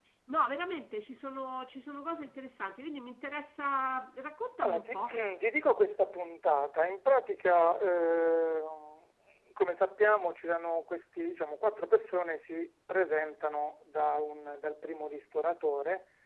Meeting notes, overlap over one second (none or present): none